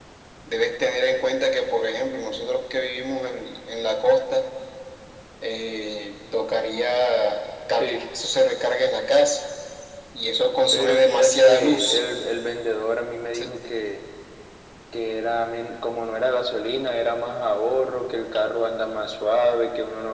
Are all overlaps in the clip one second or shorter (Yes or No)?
No